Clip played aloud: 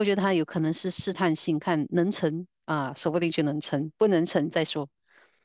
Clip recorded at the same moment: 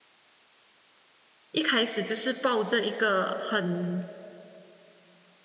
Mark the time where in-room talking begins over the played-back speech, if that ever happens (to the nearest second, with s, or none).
2 s